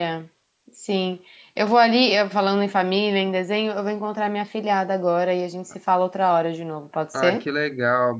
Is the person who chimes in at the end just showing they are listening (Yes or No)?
No